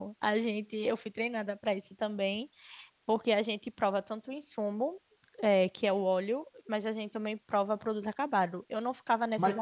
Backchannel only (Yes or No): Yes